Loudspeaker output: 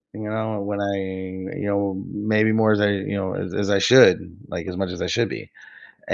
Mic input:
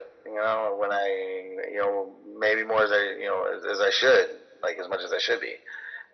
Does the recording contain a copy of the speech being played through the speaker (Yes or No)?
Yes